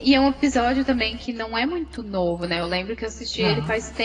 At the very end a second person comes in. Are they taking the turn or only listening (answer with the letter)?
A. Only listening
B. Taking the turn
A